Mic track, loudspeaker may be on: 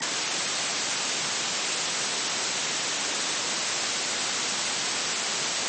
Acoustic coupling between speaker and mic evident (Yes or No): No